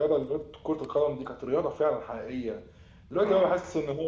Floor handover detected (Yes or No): No